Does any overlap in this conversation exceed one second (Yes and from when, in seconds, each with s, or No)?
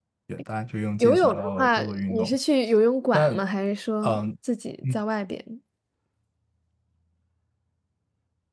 Yes, from 1.0 s